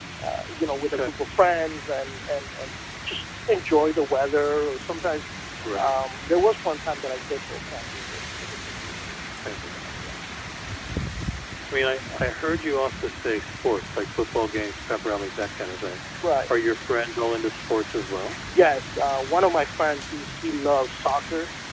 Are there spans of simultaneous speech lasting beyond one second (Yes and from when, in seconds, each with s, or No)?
No